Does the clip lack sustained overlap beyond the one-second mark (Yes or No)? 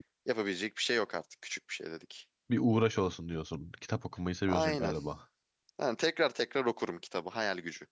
Yes